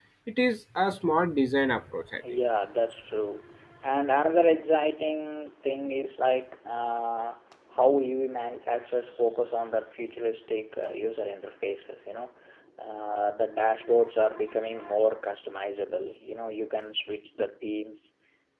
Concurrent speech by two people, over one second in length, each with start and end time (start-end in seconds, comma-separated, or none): none